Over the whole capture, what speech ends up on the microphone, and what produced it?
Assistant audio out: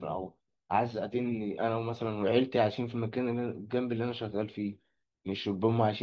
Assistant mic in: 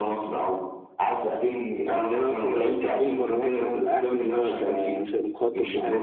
both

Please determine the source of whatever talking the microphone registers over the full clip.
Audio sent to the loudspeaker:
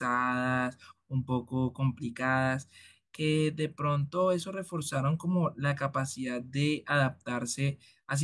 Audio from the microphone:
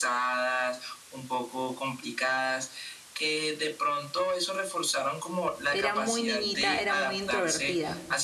both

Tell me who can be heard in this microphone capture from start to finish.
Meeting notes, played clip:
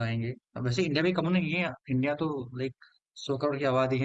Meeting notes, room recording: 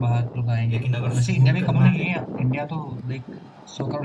both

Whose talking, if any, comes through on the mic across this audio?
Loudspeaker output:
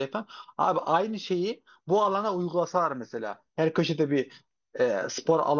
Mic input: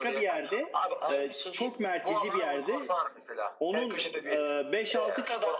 both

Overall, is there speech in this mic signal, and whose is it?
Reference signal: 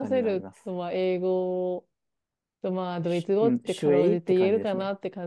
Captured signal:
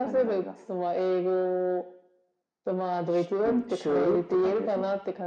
echo only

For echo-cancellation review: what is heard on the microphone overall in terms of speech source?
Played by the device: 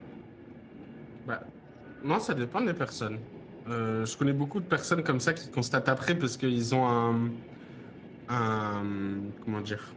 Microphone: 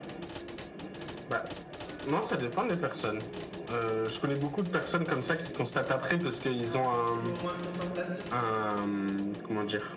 both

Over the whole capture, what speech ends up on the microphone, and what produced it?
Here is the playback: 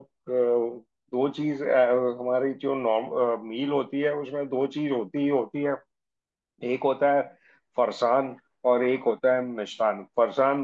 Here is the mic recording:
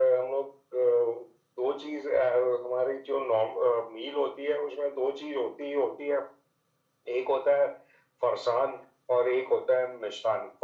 echo only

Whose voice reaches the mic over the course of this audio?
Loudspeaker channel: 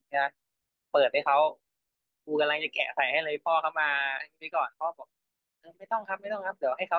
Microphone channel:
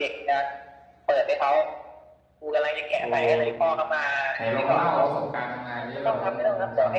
both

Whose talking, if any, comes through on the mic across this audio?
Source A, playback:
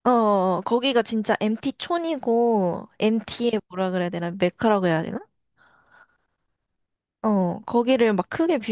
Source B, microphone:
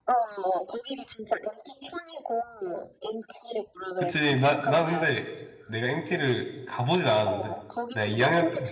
both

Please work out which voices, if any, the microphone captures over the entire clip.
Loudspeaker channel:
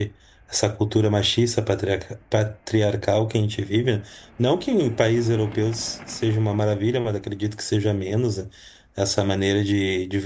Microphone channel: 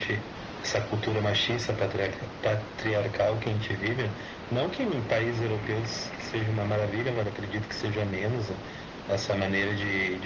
echo only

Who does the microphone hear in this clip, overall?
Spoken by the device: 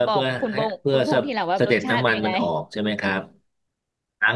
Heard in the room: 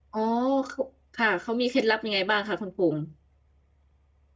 user only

